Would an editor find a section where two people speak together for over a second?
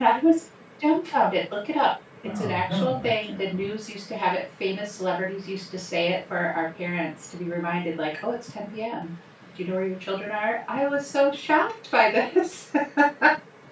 Yes, from 2.2 s

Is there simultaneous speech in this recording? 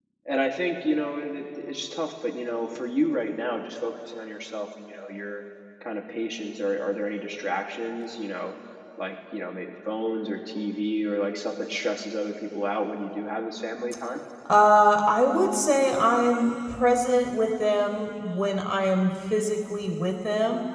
No

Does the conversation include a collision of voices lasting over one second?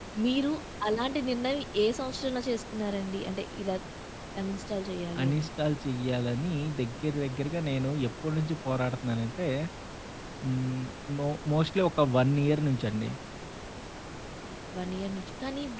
No

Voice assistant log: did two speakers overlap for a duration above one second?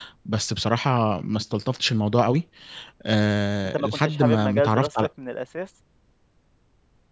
Yes, from 3.6 s

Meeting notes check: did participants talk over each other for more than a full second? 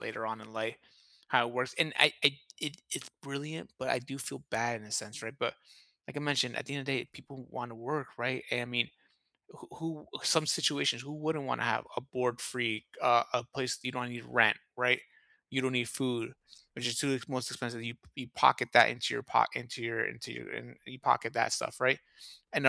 No

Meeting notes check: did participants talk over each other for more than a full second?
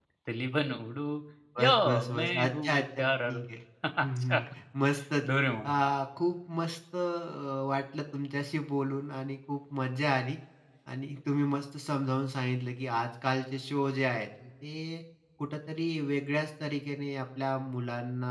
Yes, from 1.6 s

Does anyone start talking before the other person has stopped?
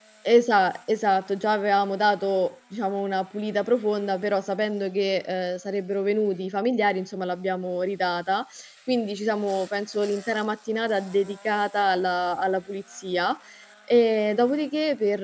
No

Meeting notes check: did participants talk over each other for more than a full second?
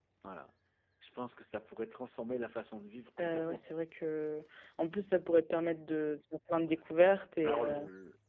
No

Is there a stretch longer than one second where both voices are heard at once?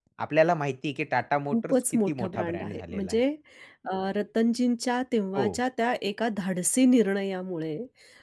Yes, from 1.5 s

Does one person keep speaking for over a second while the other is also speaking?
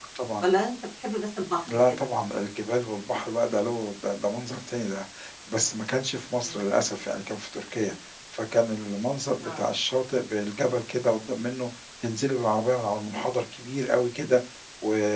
No

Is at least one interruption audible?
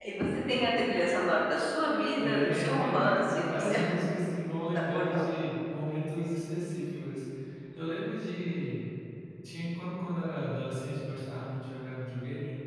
Yes, from 2.2 s

